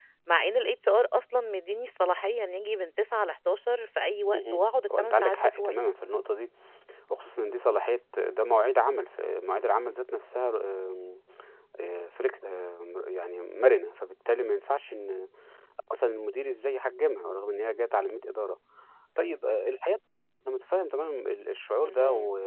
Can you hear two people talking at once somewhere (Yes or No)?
Yes